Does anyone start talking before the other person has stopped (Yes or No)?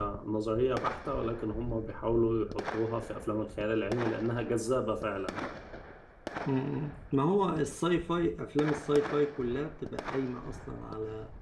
No